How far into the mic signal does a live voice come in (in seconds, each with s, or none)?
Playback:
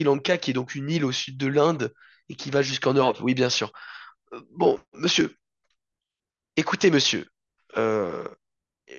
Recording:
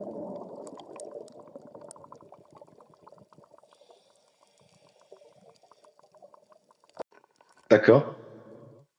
7.7 s